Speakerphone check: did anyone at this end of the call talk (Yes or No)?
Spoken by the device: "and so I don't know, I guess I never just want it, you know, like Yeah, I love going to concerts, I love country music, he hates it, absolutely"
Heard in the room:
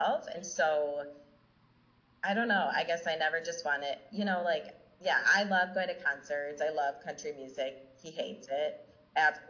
No